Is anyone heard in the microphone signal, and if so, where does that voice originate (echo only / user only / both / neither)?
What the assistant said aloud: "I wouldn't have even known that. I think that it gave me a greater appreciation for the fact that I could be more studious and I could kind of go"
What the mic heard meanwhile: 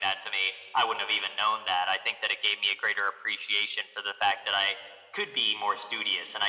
echo only